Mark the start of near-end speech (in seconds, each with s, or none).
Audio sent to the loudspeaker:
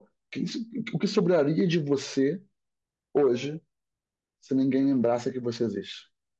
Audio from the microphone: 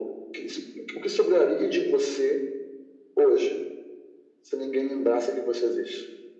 none